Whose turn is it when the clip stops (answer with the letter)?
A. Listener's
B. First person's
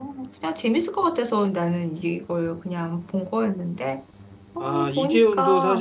A